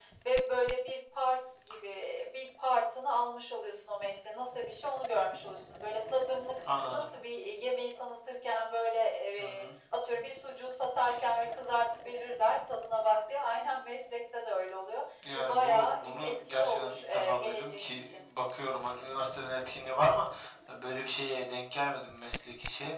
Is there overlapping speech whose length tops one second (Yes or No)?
Yes